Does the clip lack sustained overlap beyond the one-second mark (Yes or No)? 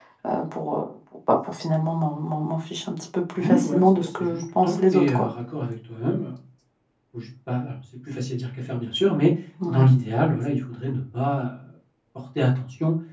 No